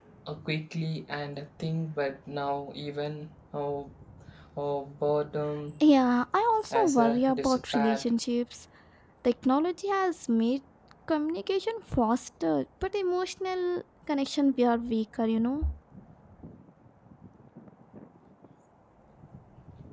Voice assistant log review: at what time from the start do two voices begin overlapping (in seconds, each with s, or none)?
6.7 s